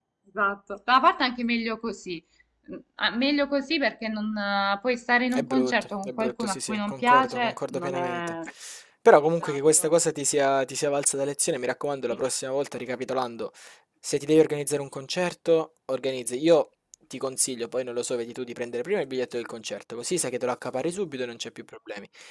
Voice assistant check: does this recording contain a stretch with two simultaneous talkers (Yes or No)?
Yes